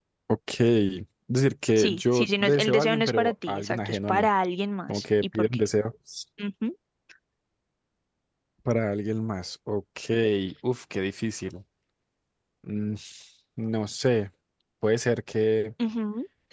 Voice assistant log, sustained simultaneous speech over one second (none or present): present